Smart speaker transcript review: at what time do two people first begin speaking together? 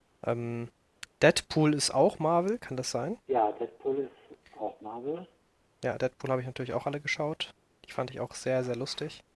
none

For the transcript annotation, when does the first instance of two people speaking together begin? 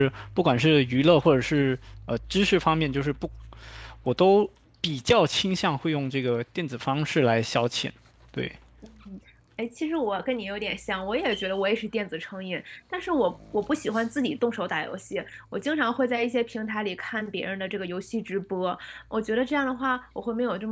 none

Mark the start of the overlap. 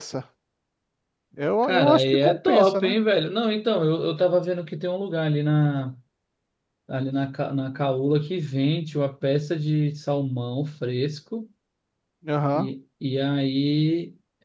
1.6 s

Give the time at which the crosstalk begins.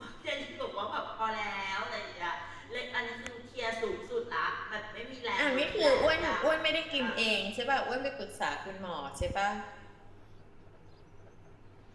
5.4 s

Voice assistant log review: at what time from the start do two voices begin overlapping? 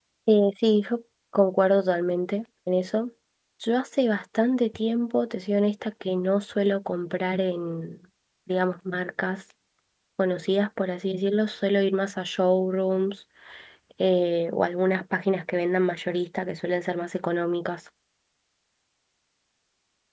none

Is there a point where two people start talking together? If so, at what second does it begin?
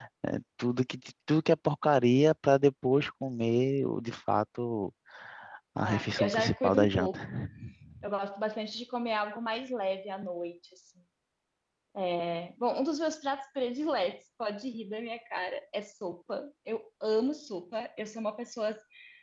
5.8 s

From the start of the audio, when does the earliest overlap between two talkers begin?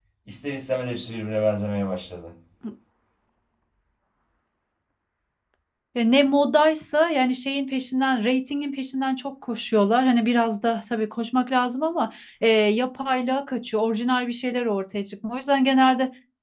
none

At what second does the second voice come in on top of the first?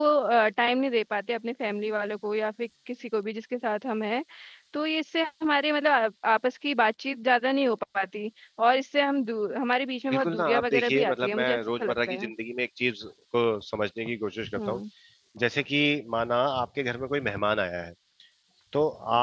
10.1 s

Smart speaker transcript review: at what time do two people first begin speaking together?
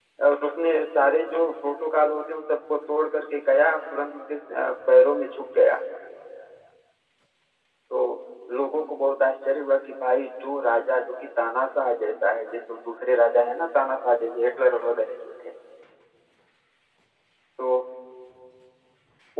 none

